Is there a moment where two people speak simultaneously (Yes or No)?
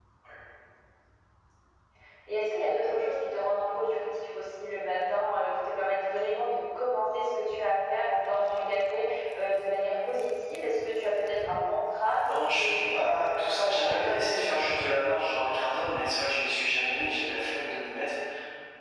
Yes